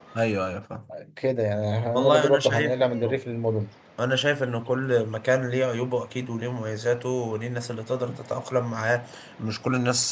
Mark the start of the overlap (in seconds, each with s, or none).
1.9 s